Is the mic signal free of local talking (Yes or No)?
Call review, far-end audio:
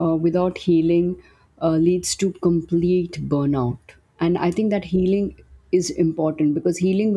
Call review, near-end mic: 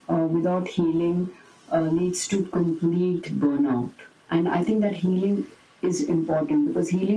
Yes